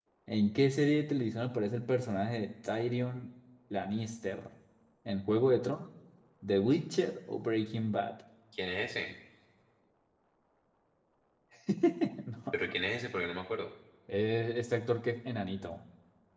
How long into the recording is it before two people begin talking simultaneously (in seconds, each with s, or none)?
none